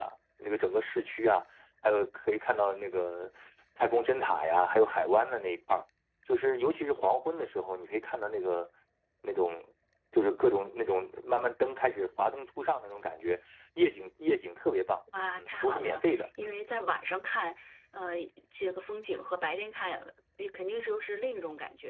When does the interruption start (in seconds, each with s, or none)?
15.3 s